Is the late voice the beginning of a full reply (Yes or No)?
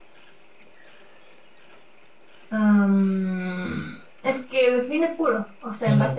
Yes